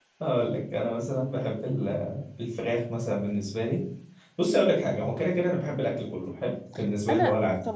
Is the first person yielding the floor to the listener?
Yes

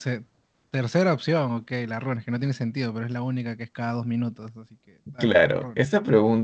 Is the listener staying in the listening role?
No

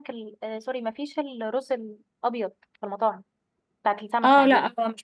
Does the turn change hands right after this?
Yes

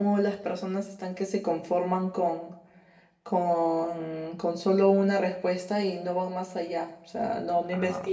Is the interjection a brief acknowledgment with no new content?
Yes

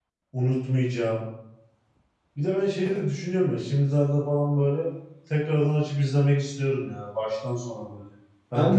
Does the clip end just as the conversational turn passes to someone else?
Yes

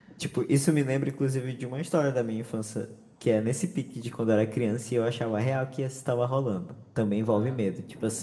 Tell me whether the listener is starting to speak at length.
No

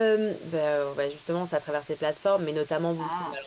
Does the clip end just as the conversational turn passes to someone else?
No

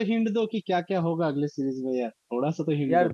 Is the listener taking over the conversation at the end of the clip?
Yes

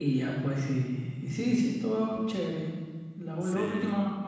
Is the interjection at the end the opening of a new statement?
No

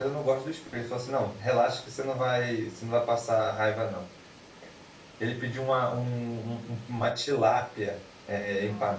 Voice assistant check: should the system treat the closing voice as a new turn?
No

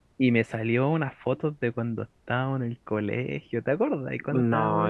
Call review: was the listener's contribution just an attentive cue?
No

